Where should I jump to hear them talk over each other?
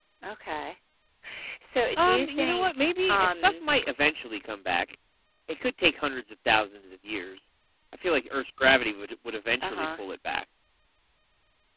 2 s

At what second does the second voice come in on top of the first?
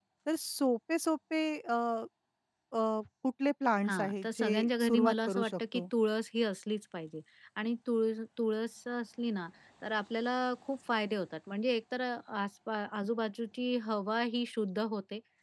4 s

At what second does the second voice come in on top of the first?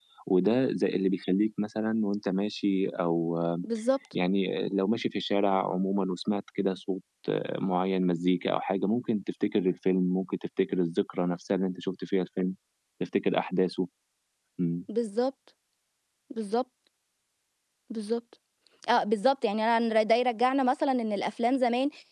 none

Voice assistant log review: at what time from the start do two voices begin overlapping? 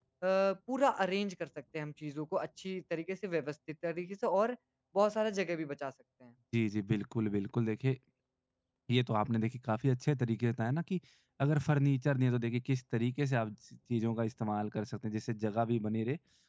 none

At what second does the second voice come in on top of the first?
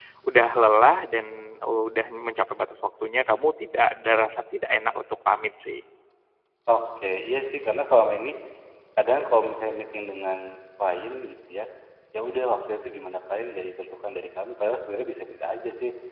none

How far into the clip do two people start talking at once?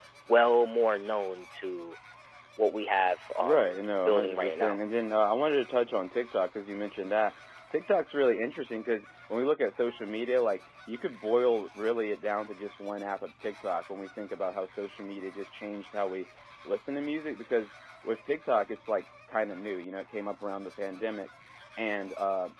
3 s

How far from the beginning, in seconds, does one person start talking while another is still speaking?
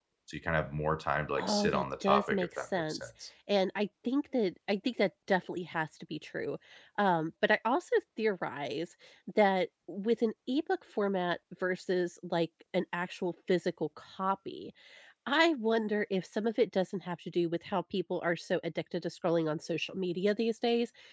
1 s

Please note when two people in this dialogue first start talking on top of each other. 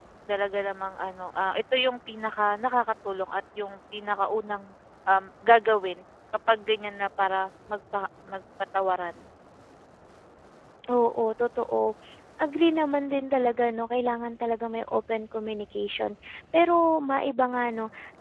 none

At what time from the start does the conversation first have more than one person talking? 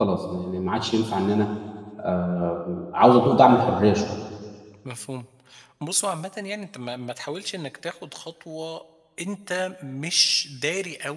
none

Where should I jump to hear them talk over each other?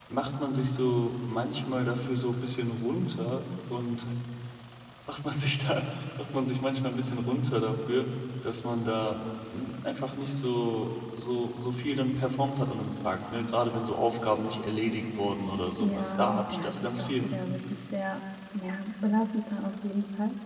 16 s

